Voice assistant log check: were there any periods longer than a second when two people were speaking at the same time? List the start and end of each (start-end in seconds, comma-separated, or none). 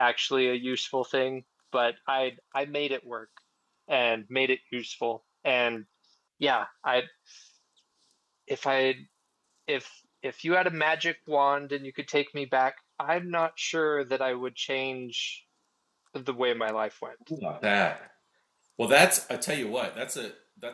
none